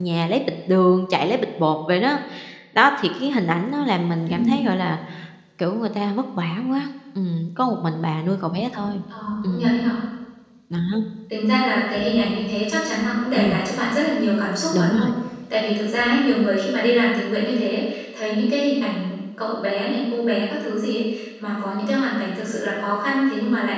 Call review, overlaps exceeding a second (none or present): none